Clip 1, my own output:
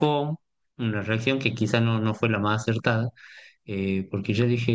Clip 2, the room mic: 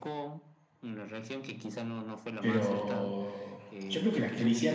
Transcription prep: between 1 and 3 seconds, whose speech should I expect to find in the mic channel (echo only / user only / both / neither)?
both